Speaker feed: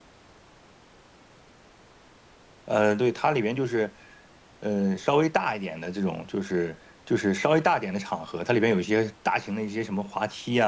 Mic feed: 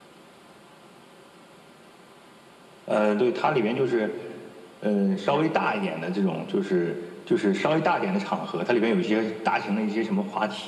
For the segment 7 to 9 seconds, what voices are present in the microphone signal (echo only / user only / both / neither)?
echo only